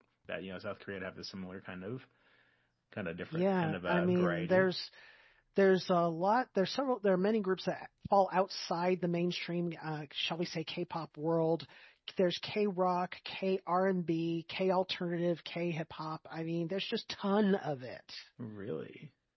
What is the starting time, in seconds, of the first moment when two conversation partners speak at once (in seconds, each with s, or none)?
3.3 s